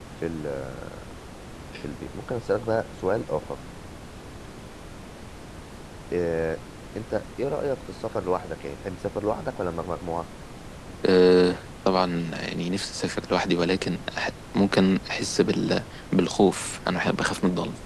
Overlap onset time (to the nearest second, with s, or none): none